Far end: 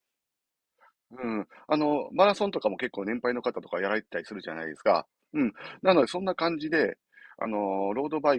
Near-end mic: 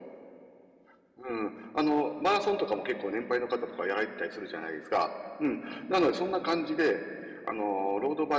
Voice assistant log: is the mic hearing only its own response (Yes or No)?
Yes